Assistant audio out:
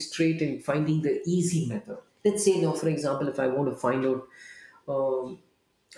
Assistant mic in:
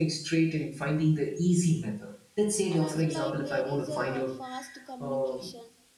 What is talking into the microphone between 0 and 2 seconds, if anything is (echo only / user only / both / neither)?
echo only